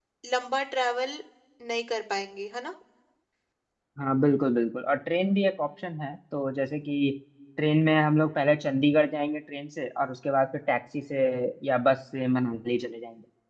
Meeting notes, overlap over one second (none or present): none